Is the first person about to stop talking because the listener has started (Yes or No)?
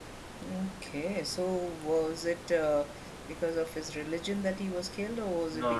Yes